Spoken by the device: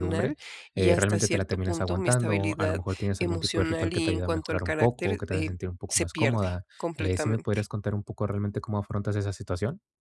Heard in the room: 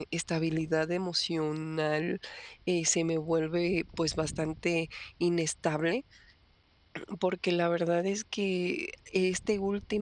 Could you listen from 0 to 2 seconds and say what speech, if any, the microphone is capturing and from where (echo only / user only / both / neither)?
user only